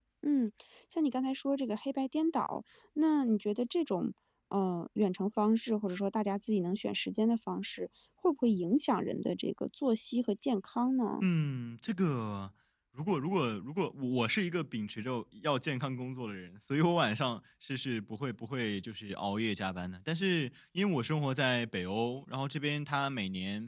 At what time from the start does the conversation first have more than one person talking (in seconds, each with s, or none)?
none